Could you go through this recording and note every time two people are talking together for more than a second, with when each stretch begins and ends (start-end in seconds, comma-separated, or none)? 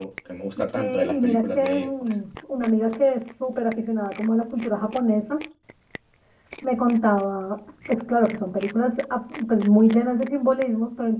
0.8-2.1